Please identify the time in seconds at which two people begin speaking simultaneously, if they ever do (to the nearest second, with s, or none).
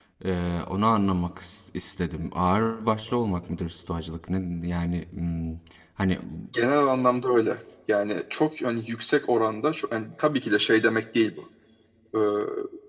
none